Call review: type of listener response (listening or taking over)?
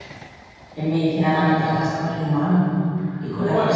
taking over